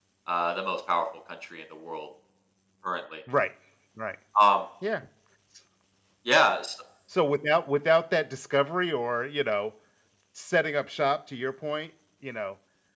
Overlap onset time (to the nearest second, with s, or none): none